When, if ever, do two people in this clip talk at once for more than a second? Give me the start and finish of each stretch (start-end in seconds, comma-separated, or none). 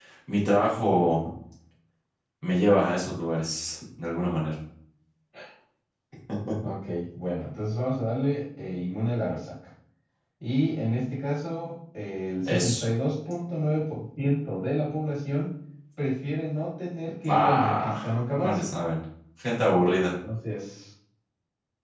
17.2-18.6